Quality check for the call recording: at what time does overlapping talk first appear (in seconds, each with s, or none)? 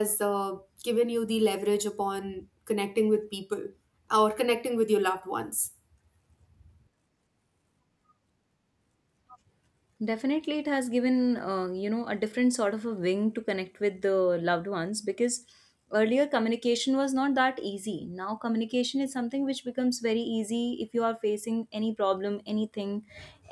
none